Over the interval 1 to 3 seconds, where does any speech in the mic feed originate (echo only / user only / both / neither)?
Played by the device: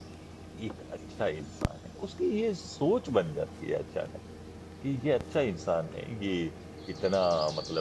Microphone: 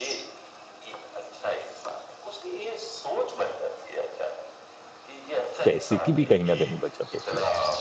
echo only